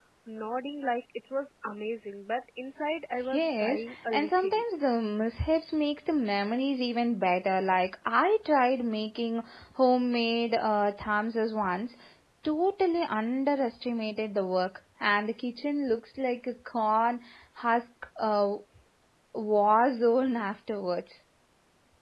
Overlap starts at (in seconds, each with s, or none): 3.3 s